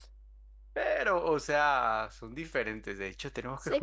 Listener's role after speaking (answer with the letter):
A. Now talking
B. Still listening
B